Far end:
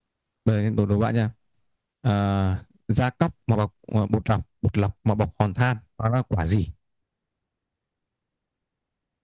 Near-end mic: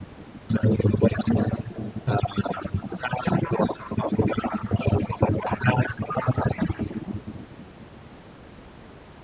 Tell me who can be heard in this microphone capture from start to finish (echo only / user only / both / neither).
echo only